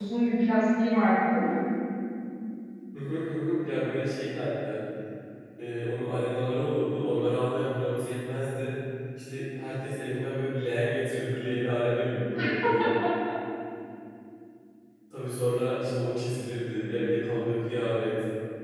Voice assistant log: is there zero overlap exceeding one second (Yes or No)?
Yes